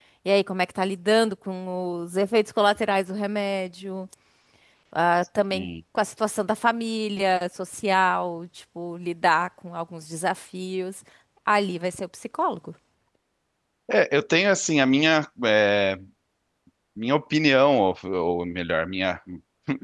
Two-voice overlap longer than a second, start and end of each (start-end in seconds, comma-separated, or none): none